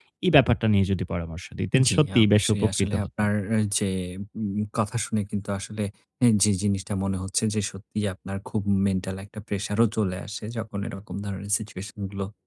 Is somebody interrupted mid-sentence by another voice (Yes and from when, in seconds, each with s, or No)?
Yes, from 1.7 s